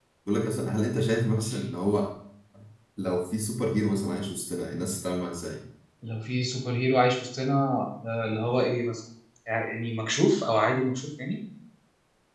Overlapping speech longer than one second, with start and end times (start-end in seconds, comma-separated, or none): none